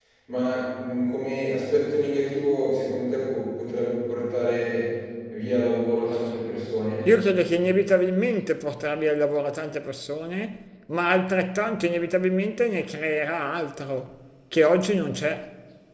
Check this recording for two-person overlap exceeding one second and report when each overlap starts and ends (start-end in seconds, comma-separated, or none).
none